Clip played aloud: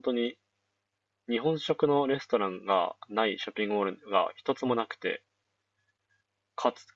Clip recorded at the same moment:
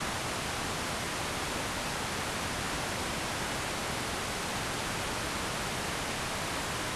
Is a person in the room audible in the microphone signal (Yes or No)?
No